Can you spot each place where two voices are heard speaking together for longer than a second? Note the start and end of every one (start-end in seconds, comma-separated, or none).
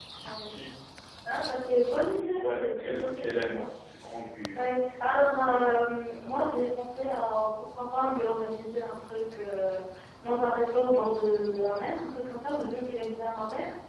2.4-3.6